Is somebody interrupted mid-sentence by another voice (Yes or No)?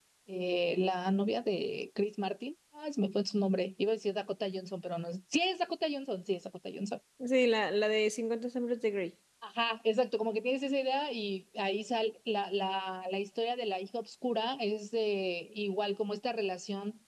No